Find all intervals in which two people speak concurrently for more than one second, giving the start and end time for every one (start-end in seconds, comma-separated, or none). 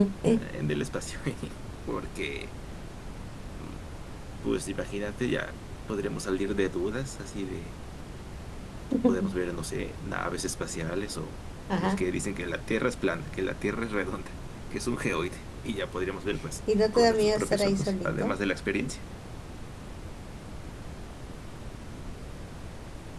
16.9-18.4